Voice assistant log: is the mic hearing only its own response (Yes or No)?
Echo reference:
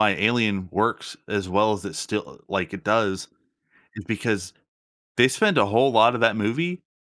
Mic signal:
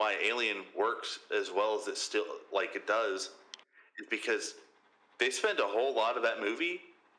Yes